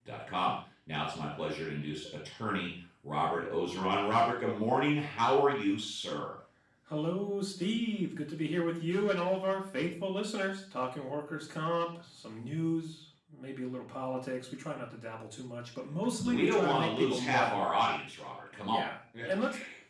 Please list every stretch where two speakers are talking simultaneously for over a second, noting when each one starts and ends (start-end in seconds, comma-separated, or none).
16.2-17.7